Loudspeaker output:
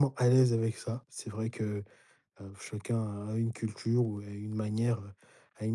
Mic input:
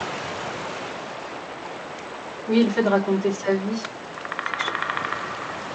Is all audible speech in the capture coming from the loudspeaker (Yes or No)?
No